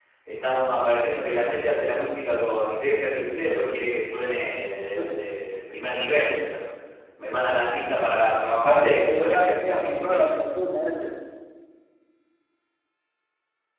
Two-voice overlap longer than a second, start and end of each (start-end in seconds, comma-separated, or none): 8.5-10.2